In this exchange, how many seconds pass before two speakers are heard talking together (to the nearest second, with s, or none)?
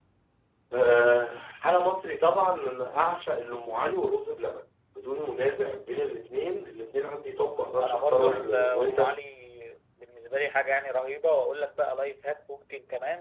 8 s